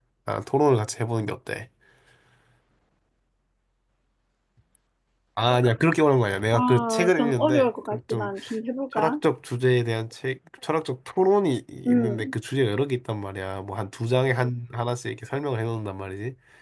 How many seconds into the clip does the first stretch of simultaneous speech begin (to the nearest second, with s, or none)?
7 s